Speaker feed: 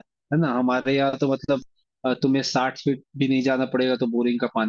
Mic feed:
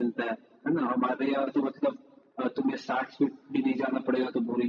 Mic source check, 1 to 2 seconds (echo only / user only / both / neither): echo only